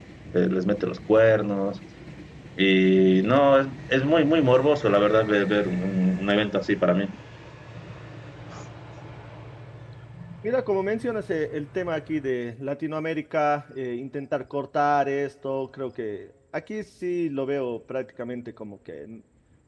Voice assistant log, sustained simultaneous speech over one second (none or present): none